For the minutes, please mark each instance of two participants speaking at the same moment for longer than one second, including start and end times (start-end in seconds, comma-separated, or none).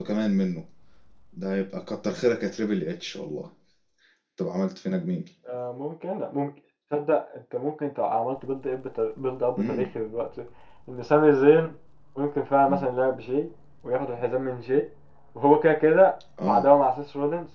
none